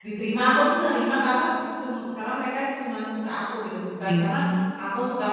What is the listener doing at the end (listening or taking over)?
listening